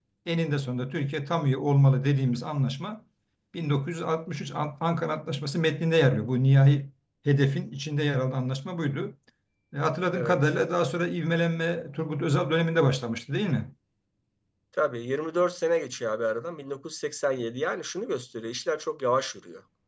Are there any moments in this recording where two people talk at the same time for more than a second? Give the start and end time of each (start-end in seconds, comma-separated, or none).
none